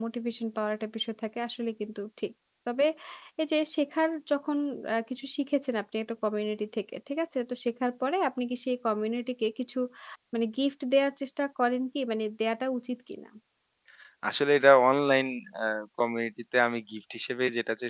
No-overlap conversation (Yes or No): Yes